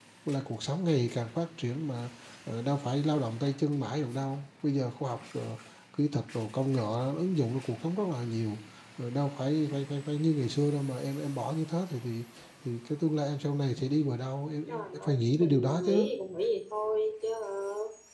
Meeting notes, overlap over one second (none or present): present